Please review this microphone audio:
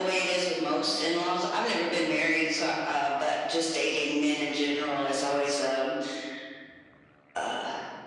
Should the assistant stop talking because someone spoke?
No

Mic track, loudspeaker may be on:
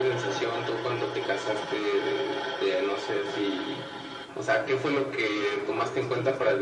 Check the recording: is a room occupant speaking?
Yes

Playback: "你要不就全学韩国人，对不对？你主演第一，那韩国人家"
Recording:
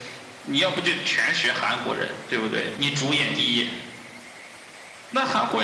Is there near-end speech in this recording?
No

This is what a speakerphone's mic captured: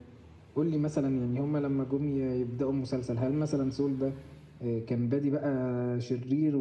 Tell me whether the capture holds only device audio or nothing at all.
Yes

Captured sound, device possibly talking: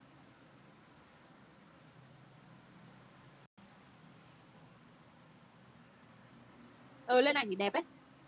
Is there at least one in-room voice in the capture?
Yes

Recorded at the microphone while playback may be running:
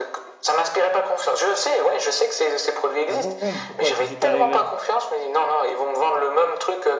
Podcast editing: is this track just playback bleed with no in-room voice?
No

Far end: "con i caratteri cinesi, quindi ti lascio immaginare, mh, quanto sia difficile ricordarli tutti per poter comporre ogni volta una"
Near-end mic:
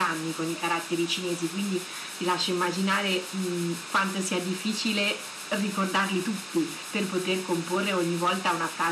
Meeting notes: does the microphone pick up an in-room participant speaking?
No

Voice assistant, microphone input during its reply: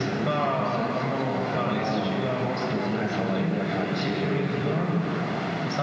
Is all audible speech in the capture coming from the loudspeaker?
Yes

